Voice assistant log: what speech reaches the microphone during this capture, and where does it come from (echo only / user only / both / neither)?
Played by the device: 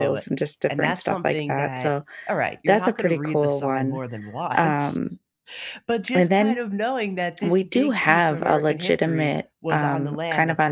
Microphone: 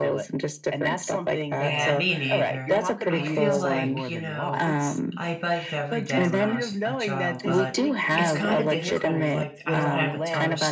both